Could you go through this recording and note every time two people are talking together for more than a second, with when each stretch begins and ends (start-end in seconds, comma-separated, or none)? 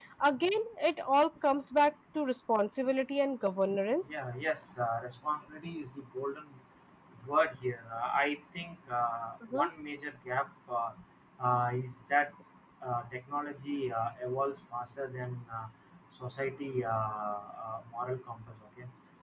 none